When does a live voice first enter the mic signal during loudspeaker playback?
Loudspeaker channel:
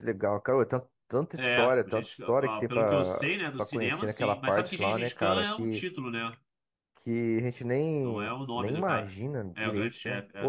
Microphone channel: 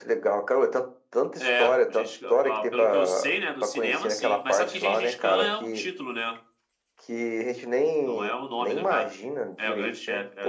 none

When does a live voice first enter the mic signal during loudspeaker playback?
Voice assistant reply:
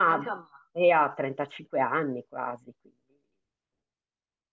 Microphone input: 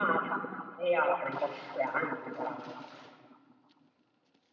none

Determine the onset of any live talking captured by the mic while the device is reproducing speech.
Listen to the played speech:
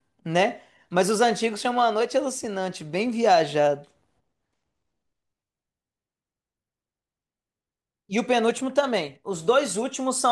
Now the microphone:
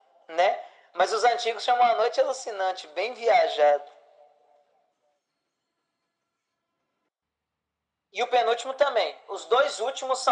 none

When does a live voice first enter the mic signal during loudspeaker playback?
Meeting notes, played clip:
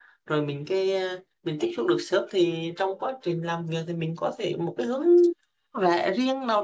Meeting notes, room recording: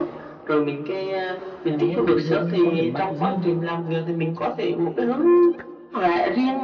1.7 s

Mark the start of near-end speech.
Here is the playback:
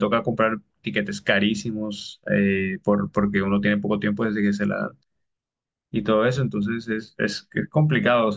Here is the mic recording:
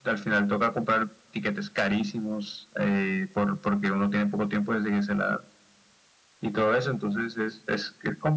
none

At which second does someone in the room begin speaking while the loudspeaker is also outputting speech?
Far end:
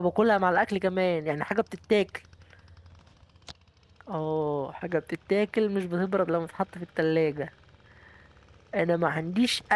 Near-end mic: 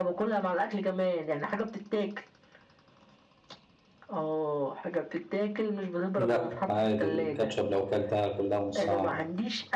6.2 s

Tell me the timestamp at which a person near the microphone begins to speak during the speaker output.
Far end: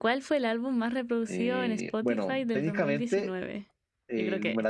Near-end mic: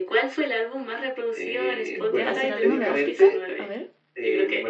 1.9 s

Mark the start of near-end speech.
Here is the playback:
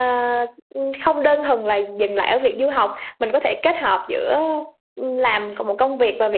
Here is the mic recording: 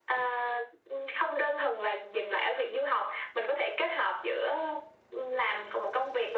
none

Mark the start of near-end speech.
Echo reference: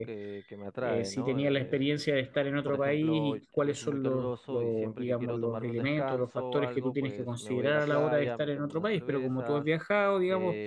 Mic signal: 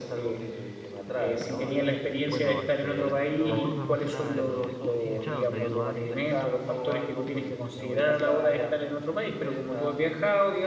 2.1 s

